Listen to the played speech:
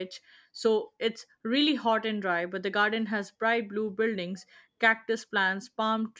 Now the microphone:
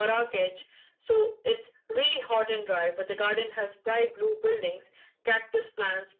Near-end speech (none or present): none